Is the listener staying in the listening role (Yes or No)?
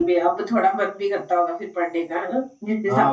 No